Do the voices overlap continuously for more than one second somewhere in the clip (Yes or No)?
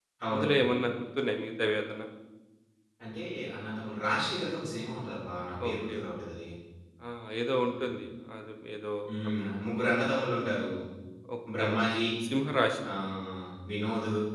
No